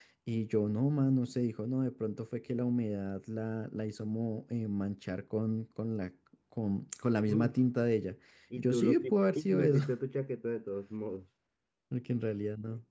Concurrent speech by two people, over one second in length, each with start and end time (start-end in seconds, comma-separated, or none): 8.6-9.8